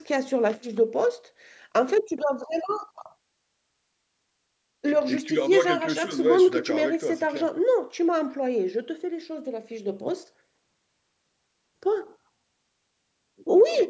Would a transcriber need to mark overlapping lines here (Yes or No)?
Yes